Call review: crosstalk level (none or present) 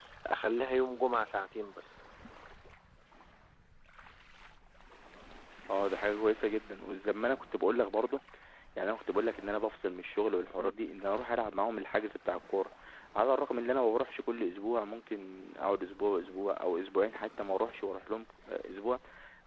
none